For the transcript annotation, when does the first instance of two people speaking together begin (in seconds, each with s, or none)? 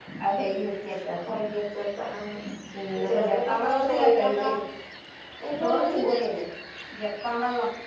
3.0 s